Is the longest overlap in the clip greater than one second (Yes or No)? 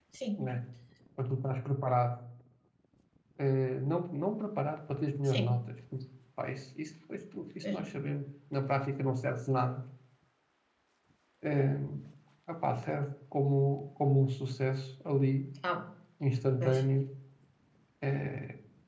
No